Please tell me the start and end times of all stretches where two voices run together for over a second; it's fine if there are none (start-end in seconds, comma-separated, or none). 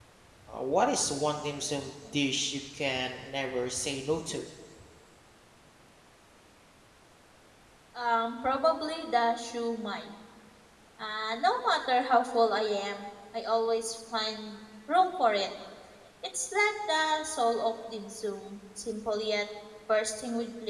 none